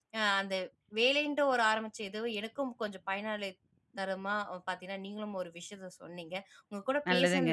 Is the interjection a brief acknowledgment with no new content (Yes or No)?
Yes